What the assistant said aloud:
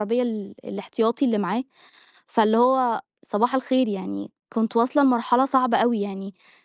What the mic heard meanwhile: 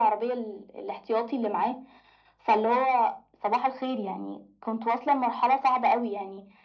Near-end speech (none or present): none